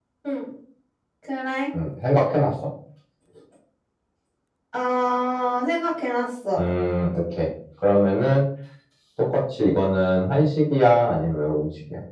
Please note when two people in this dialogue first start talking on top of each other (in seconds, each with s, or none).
none